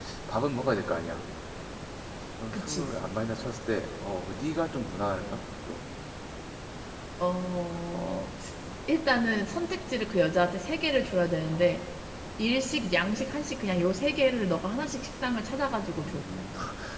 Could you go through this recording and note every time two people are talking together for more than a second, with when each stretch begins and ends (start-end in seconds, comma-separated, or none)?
none